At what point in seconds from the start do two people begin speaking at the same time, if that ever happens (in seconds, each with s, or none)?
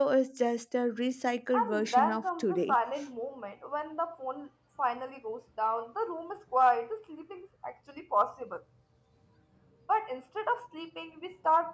1.5 s